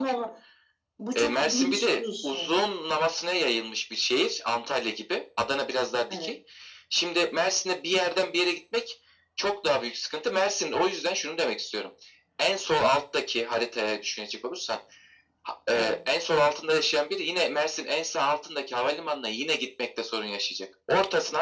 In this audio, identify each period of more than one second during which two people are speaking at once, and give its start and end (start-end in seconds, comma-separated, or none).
1.1-2.5